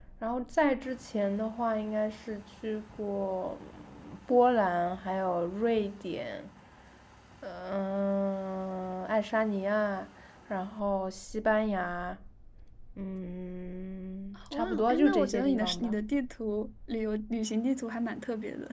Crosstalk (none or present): present